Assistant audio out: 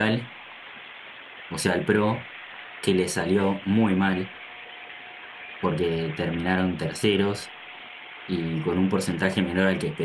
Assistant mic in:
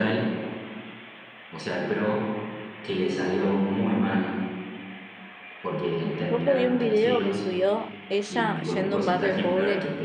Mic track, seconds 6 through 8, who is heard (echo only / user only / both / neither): both